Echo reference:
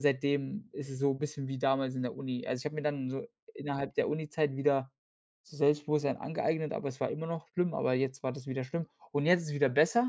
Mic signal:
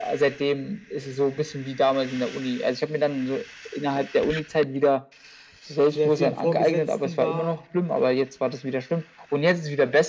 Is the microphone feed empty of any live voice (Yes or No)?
No